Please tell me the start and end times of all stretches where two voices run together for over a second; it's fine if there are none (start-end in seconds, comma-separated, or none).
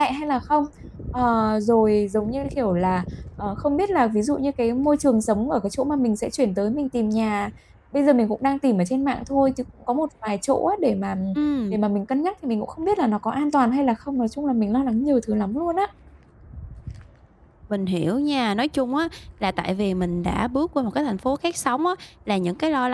none